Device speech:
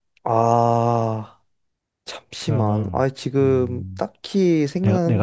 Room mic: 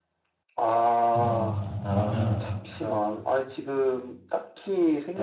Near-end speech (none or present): present